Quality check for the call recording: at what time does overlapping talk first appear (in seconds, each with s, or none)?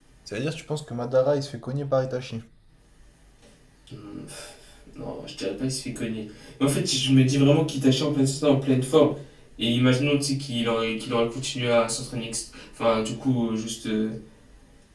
none